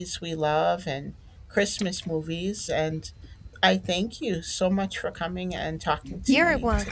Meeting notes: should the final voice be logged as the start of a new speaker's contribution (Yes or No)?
Yes